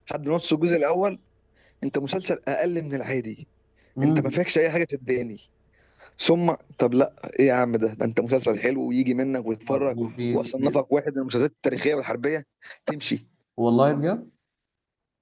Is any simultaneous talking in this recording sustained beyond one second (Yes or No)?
No